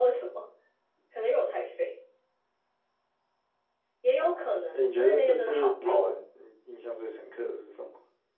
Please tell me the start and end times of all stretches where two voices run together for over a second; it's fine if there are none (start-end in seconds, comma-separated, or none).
4.2-6.2